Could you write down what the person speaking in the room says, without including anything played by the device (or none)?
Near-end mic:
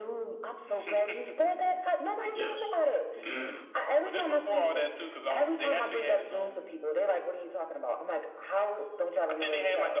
Yes. mm